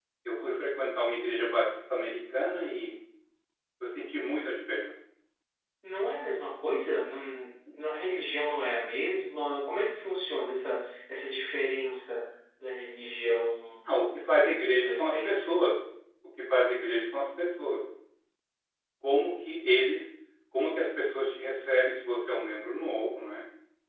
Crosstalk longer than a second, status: present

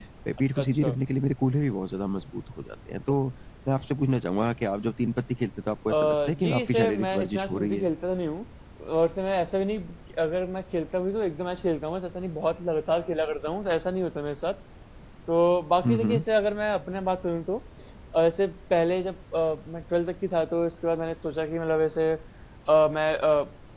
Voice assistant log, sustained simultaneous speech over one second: present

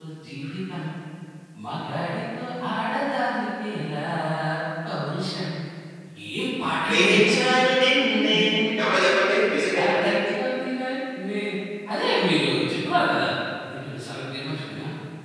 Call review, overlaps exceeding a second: none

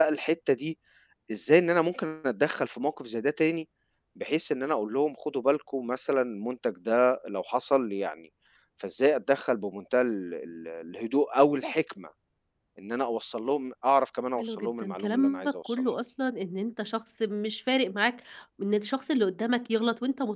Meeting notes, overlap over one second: present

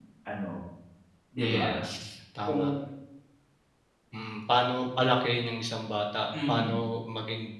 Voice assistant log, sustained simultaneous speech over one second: none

